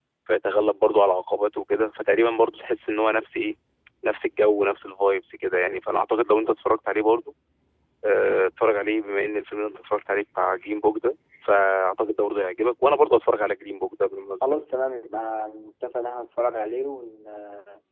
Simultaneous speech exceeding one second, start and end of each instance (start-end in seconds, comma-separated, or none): none